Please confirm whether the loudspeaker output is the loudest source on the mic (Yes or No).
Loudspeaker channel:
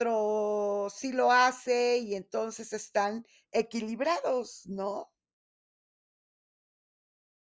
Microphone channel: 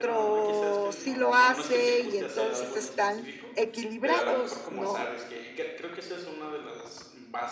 Yes